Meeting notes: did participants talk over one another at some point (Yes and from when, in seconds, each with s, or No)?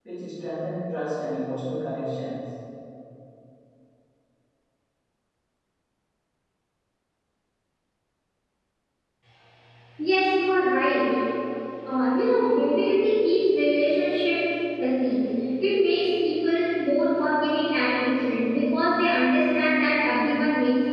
No